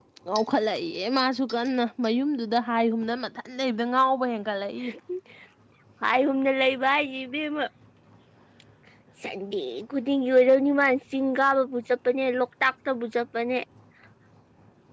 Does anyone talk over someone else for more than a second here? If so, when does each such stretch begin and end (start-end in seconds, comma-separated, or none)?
none